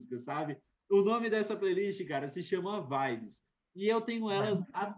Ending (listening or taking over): listening